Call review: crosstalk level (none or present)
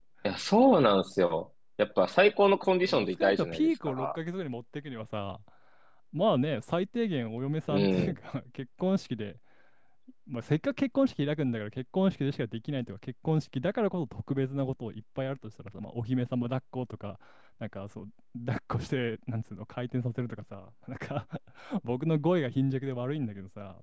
present